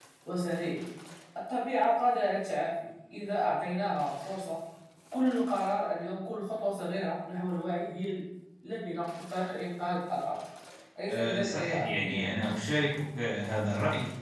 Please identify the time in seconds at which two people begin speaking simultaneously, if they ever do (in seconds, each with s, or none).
11.1 s